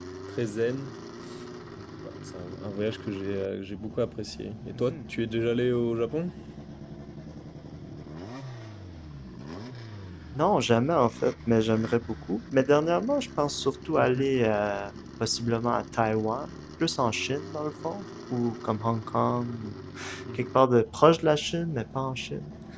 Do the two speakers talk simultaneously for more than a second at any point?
No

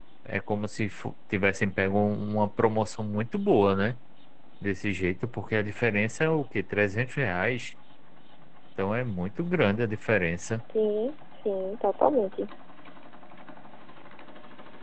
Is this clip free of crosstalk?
Yes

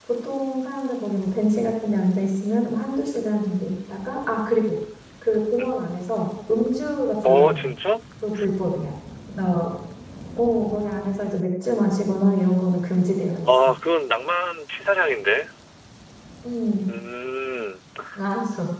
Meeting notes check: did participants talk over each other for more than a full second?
No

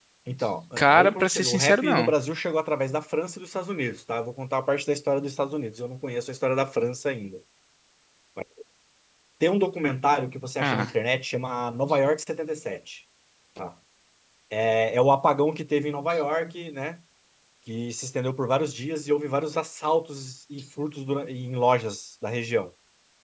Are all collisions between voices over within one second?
No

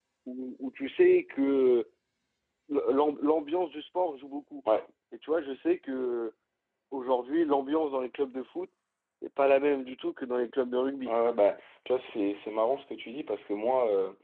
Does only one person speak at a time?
Yes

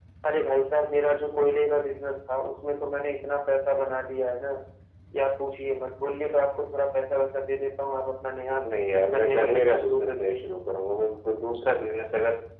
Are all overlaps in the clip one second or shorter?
No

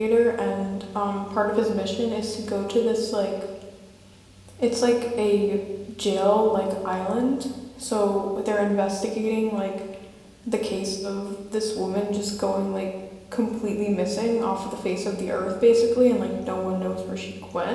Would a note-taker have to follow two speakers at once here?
No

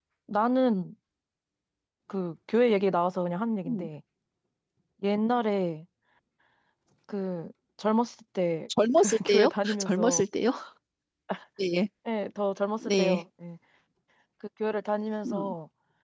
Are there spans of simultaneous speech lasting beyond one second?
Yes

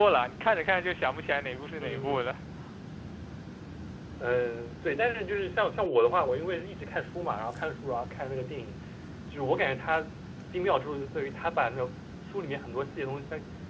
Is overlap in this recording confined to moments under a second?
Yes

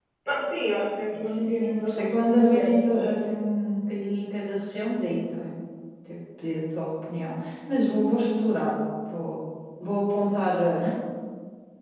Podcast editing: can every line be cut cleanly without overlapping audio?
No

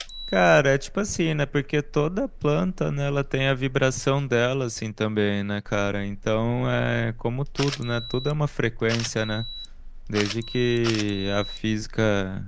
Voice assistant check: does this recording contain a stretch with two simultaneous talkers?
No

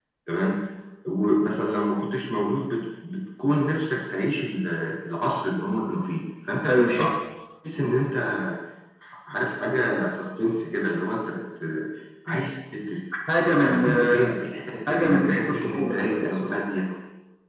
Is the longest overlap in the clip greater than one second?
Yes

